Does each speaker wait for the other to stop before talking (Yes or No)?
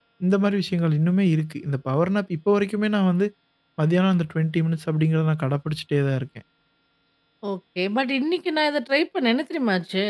Yes